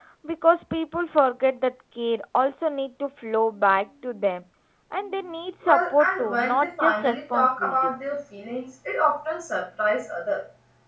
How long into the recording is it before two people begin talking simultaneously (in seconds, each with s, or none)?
5.6 s